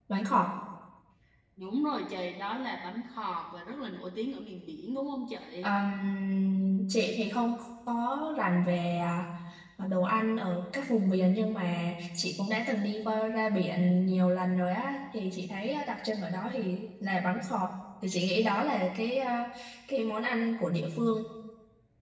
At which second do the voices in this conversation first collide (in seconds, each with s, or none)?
none